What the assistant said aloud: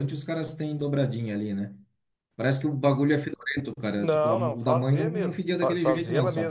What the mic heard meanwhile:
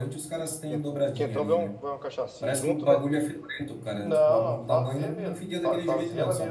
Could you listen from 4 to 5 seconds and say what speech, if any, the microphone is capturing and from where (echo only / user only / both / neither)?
echo only